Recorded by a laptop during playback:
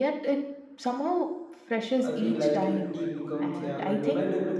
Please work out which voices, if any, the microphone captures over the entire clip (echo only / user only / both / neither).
both